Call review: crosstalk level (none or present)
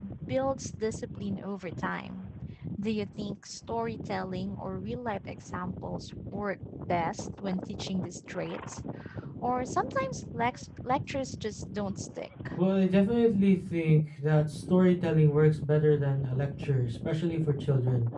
none